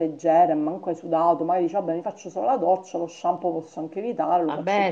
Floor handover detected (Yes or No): Yes